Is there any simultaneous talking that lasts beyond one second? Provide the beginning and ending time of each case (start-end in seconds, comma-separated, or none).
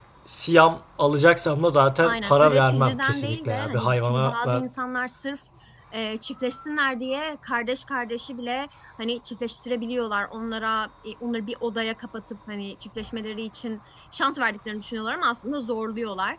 2.0-4.6